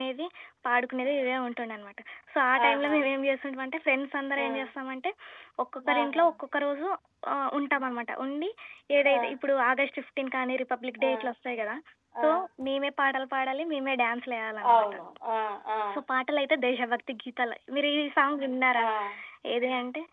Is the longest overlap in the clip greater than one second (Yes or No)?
No